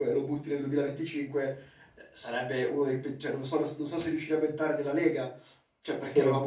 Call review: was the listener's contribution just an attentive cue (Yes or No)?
Yes